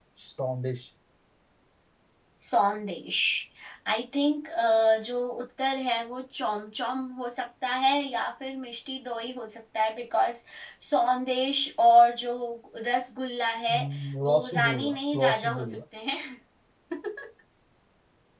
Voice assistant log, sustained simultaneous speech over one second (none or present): present